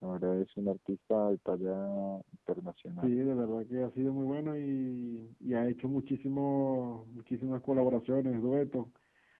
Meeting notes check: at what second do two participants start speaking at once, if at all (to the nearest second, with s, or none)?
none